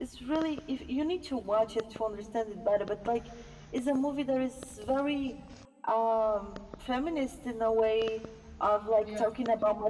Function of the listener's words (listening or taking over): listening